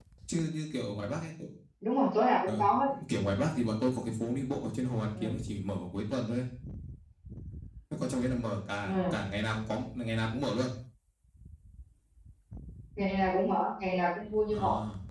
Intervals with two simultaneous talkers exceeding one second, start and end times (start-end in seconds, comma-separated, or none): none